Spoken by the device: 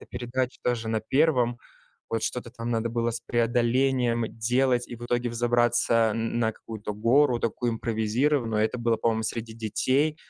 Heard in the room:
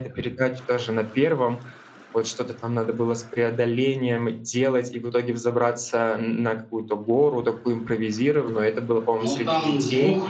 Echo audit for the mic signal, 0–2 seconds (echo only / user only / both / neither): echo only